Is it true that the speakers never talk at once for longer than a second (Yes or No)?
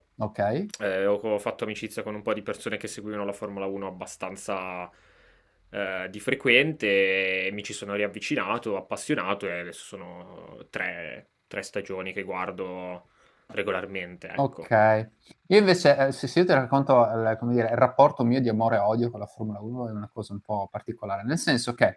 Yes